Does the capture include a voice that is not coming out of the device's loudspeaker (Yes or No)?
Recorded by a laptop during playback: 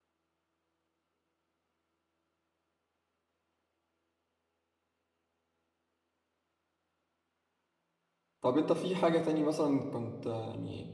Yes